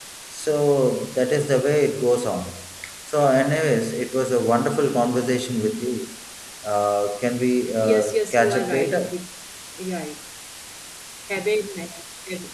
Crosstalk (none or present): present